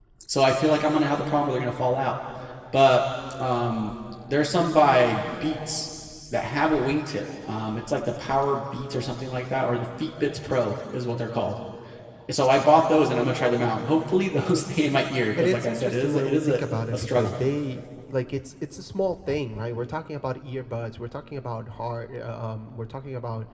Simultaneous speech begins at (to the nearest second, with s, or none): 15 s